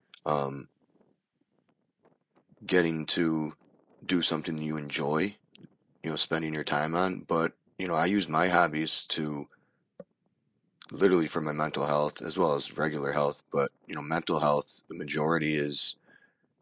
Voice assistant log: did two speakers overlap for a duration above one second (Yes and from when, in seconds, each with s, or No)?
No